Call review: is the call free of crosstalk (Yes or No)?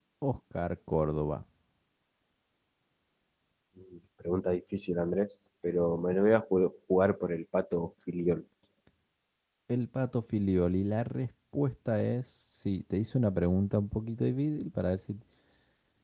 Yes